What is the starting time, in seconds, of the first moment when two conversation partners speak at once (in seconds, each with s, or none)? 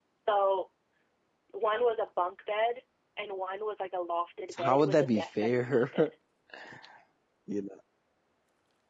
4.5 s